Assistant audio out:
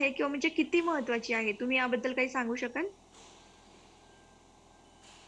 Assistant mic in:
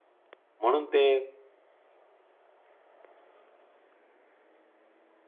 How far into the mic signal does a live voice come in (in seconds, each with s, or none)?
0.6 s